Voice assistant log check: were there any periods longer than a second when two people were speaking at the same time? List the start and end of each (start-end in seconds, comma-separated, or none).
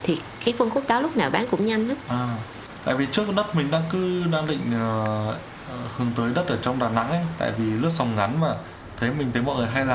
none